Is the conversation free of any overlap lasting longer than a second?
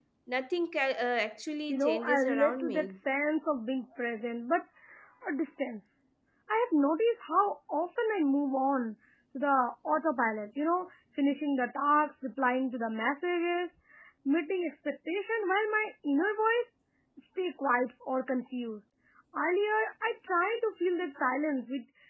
No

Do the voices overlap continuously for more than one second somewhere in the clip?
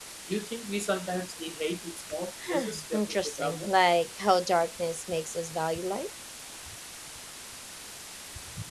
Yes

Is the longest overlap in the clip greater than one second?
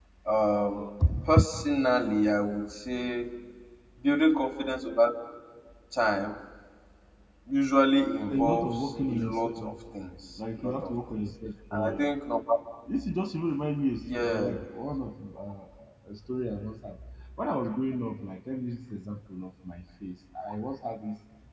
Yes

